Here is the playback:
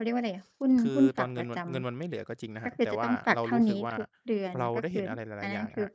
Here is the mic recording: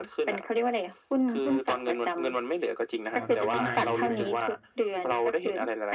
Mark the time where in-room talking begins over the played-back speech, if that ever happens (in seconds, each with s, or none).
3.1 s